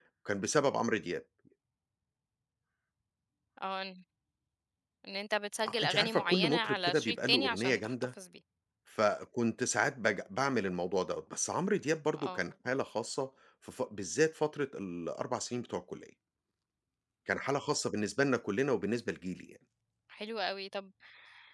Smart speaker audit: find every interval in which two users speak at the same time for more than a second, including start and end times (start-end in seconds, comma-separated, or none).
5.7-7.9